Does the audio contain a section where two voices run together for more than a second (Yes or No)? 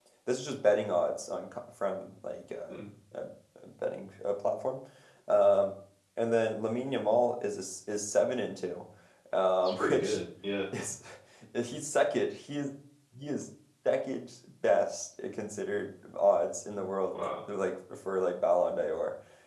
No